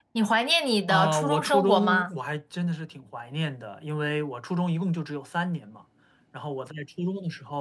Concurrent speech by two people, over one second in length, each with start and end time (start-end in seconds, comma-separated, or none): 0.9-2.1